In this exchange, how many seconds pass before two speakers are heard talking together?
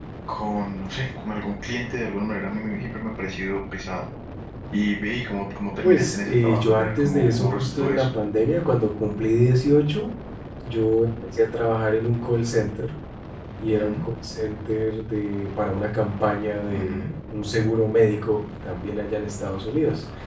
5.8 s

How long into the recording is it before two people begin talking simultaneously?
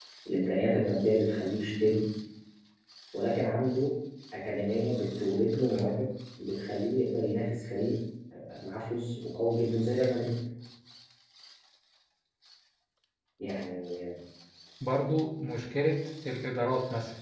none

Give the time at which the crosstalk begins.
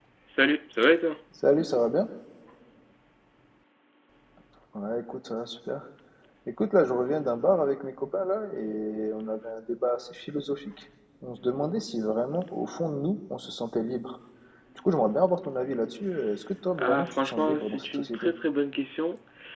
16.8 s

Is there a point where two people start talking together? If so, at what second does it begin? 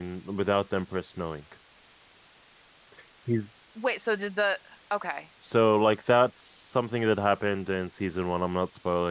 none

